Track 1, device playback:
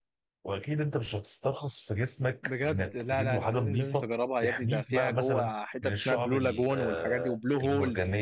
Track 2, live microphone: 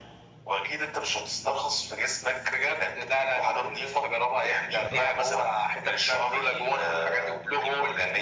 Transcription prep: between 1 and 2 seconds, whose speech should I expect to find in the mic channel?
echo only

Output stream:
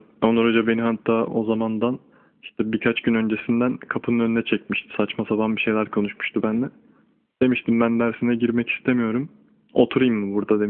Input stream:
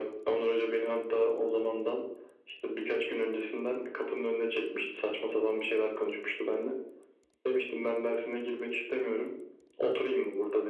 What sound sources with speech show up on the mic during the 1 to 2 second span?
echo only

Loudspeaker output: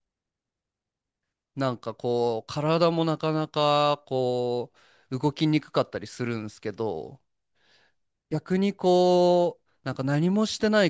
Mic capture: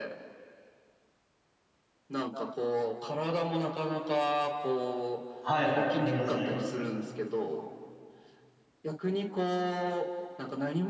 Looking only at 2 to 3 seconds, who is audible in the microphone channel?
echo only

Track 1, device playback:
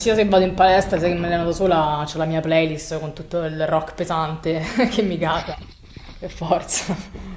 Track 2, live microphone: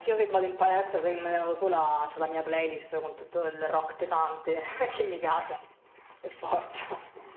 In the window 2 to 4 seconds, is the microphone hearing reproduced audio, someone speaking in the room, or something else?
echo only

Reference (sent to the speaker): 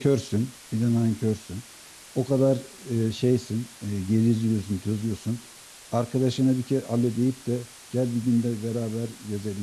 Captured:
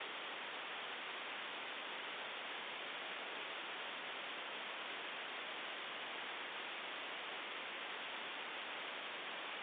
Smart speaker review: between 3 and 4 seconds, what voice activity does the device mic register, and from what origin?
neither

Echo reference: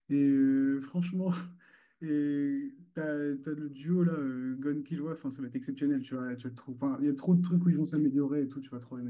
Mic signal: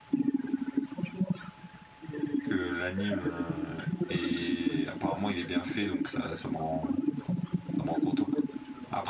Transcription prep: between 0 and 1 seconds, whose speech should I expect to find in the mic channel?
echo only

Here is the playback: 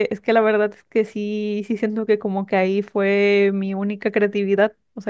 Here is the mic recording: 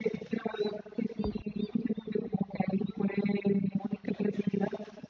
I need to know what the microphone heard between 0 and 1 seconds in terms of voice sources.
echo only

